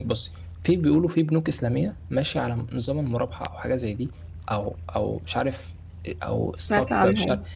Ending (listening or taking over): listening